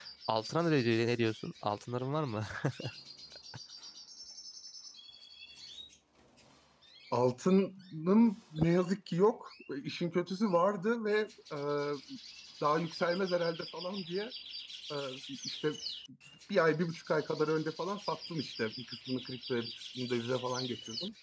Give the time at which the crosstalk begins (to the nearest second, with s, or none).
none